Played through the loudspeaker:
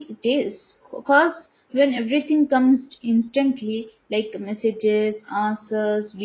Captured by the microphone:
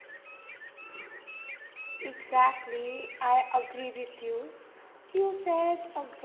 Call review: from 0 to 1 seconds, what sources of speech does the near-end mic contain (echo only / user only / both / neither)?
neither